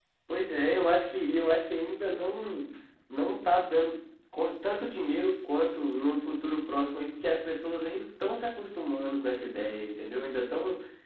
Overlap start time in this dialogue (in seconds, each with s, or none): none